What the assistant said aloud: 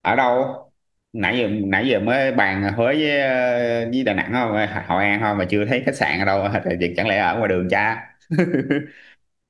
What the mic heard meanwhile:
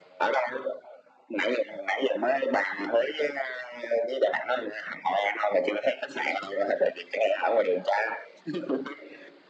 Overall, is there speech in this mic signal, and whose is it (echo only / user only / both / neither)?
echo only